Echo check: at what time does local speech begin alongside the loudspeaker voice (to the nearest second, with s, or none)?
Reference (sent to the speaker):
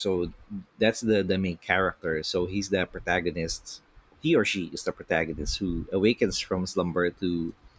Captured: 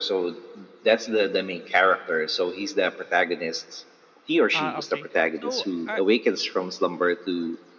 5 s